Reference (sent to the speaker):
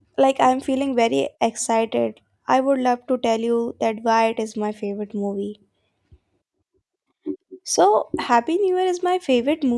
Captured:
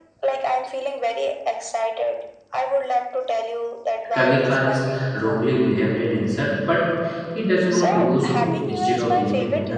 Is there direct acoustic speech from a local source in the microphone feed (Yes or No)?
Yes